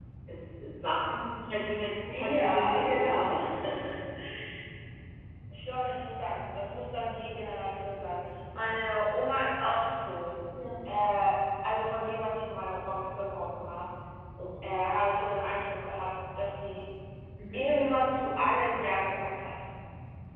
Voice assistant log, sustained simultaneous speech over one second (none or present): present